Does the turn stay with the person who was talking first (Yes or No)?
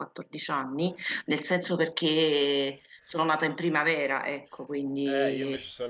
No